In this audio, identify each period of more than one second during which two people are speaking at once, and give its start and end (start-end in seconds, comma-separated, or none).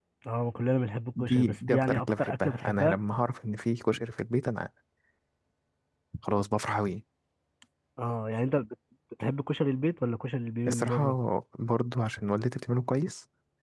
1.2-3.0